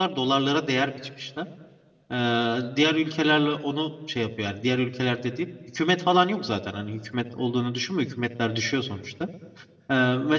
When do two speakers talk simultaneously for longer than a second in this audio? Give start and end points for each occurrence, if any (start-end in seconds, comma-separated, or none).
none